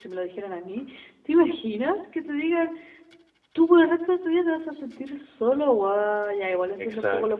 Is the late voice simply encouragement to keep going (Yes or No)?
Yes